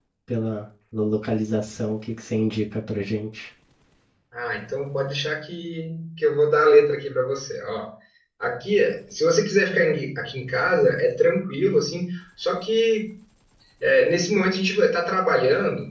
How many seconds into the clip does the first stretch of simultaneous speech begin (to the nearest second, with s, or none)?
none